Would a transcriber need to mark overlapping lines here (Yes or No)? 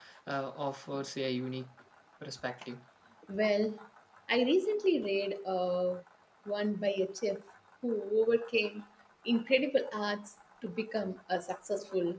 No